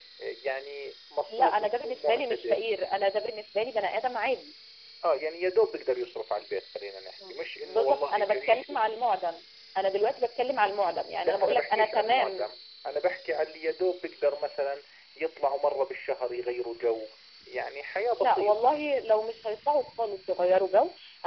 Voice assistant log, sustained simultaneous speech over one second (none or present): present